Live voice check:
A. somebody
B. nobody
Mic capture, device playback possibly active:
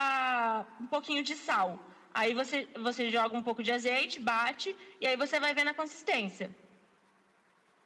B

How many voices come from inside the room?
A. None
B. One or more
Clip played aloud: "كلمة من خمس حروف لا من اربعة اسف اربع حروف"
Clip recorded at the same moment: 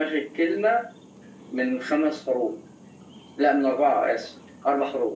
A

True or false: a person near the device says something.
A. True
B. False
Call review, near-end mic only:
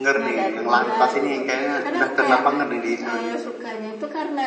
A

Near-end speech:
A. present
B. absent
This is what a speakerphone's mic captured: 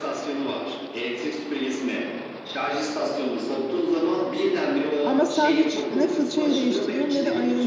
A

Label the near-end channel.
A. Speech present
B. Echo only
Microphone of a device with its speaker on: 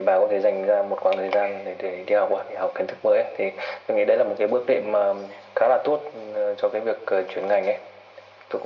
B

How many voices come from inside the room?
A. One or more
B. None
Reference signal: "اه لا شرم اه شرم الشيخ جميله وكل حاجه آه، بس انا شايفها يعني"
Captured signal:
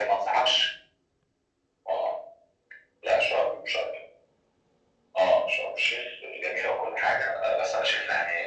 B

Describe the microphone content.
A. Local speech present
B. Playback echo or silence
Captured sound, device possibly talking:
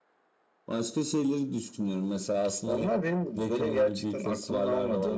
B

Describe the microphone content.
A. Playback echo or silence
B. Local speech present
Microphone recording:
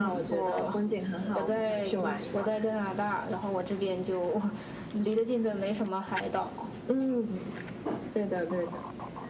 A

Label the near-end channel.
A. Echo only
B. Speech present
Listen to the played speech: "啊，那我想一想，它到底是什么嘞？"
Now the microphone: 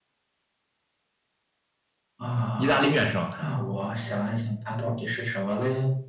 B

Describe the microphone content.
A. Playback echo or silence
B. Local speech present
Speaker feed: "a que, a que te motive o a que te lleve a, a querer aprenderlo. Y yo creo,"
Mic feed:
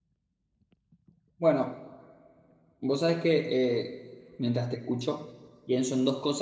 B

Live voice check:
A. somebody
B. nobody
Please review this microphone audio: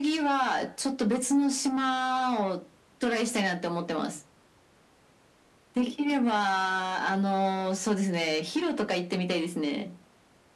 B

